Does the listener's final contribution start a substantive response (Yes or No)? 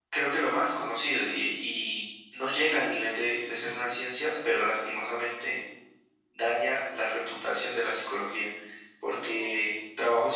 No